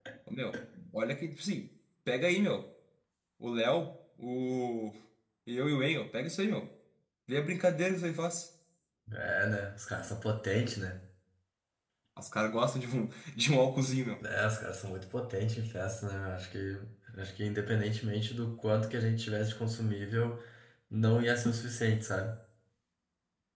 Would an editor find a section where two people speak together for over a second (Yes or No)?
No